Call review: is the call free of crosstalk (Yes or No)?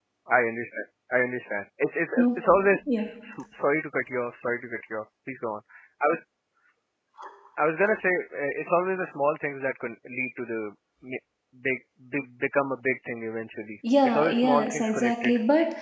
No